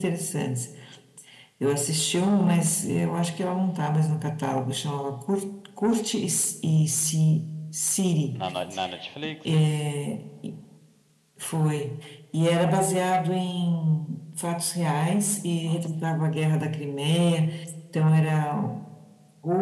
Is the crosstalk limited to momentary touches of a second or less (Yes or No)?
Yes